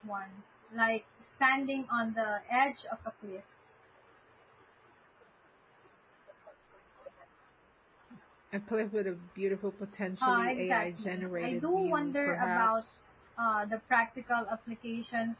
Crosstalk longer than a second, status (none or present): present